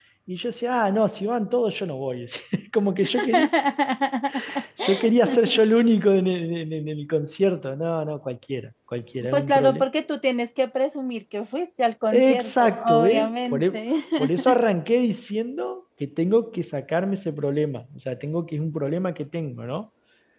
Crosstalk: present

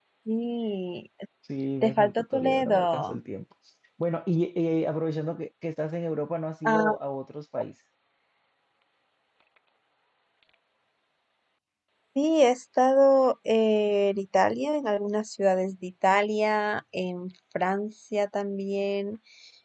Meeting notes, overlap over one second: present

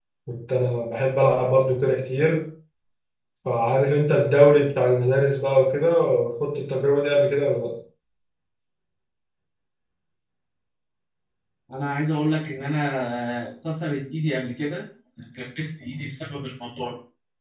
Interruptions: none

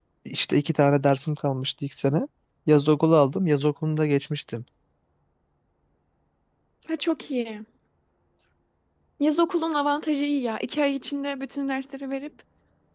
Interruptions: none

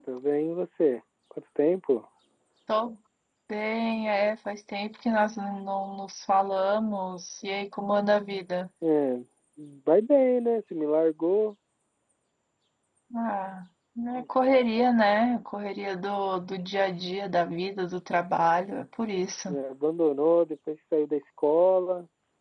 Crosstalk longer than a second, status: none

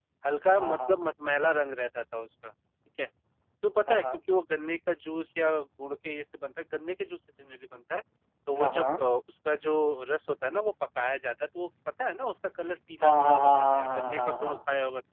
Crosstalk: present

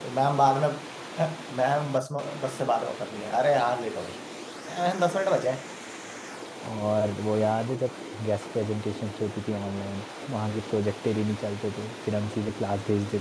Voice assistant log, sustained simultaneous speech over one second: none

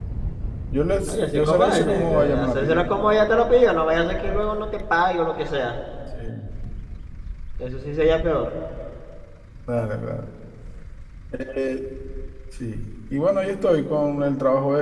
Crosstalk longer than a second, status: present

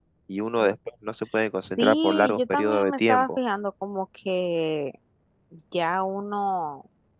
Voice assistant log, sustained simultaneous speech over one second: present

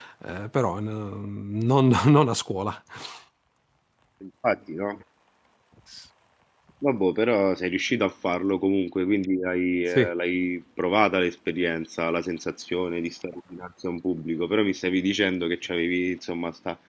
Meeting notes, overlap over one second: none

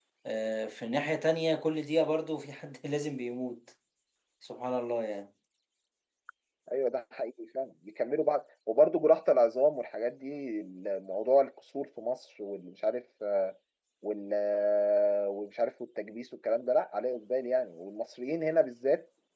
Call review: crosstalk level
none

